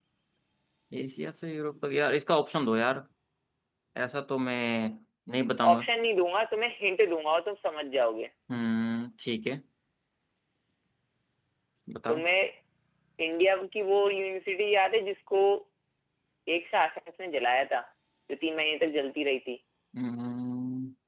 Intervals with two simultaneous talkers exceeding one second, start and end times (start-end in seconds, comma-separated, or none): none